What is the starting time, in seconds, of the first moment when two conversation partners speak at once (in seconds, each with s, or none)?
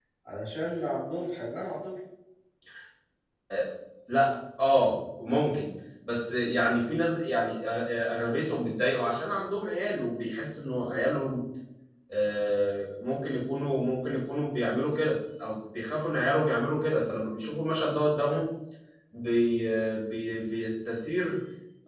none